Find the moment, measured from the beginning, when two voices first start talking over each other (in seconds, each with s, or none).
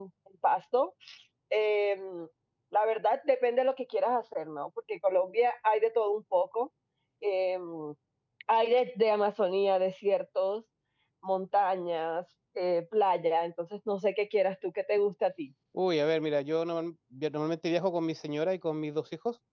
none